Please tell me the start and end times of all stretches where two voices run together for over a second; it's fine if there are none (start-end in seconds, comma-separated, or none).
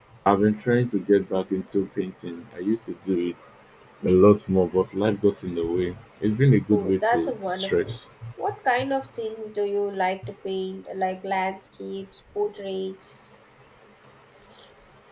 6.7-7.9